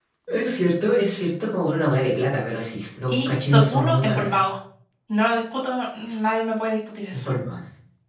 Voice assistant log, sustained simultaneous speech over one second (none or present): present